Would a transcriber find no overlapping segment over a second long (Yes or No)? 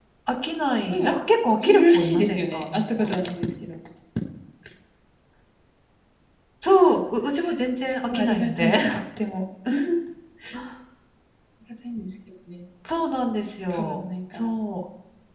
No